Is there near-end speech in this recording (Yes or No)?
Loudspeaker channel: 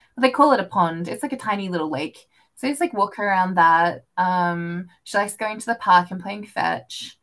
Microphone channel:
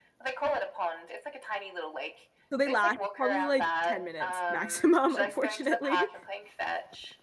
Yes